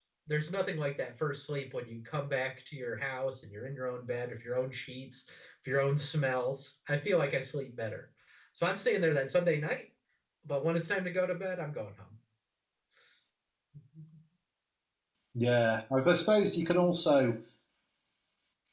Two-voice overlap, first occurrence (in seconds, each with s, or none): none